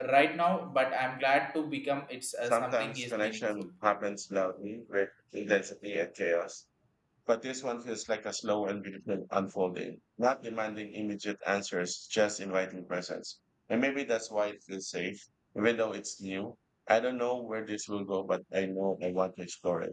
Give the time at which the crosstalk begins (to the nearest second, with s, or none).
2 s